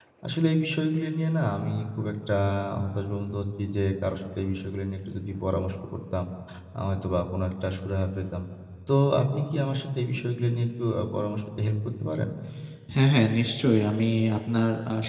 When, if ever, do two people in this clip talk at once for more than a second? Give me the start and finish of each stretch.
none

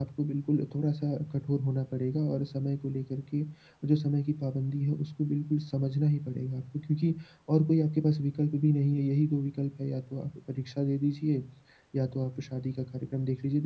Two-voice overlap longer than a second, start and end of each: none

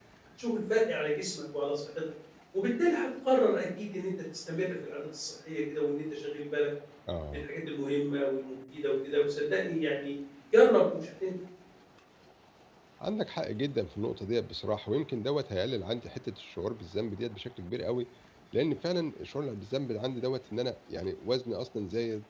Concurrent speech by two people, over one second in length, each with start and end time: none

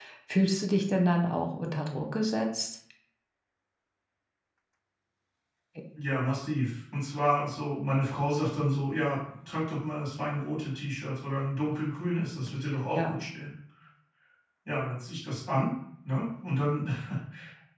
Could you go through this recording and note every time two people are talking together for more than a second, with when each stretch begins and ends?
none

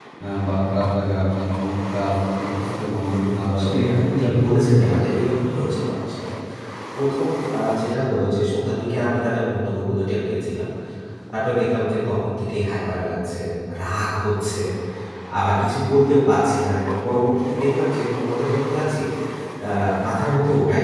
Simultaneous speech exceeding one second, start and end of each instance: 3.6-4.9

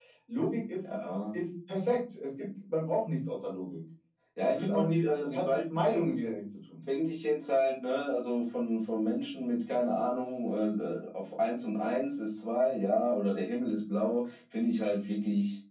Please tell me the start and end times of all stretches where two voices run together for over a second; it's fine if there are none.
4.4-6.0

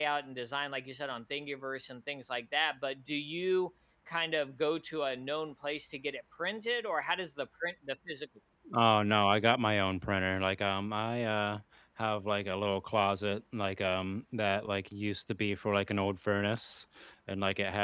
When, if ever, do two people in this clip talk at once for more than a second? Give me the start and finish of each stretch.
none

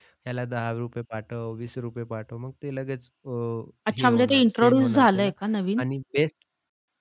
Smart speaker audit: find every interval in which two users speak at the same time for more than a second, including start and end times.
4.0-5.3

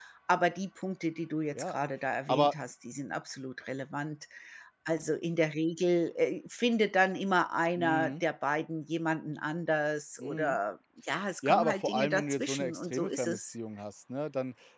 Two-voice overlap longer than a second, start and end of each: 11.4-13.5

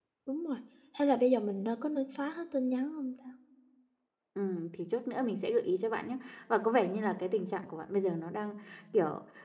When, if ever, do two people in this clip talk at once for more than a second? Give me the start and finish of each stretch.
none

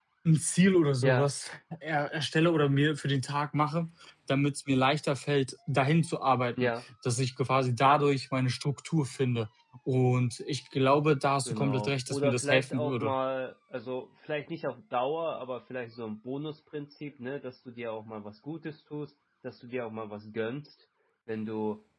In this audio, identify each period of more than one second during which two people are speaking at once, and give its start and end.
11.4-13.1

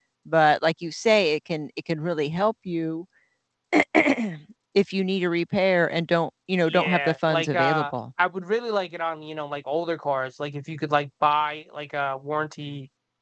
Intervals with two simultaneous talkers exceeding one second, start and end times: 6.7-7.9

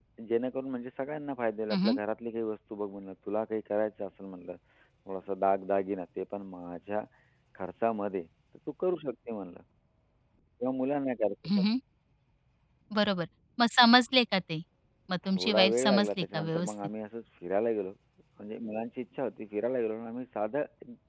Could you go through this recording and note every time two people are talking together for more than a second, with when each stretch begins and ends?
15.4-16.8

